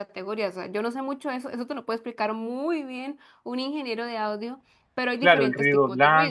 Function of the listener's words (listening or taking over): taking over